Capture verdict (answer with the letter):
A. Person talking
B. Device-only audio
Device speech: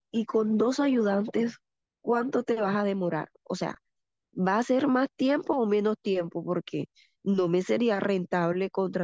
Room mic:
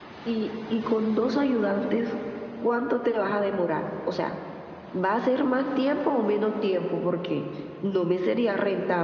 B